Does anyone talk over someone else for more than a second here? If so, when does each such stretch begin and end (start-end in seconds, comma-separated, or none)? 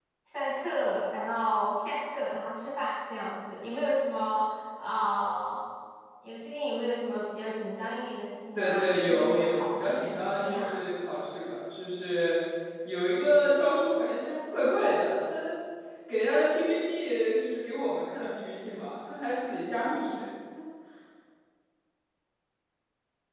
8.5-10.8